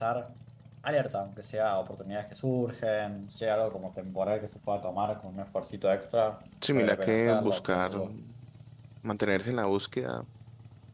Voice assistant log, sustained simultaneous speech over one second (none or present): present